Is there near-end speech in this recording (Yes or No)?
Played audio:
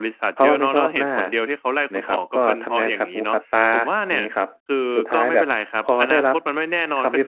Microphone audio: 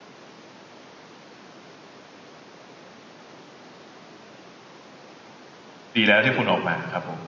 Yes